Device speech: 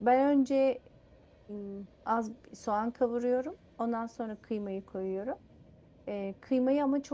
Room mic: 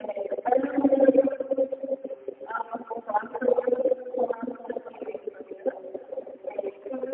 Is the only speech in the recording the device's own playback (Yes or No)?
Yes